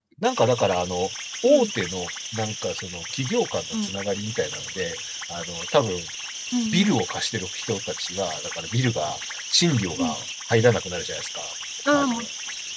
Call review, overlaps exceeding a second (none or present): none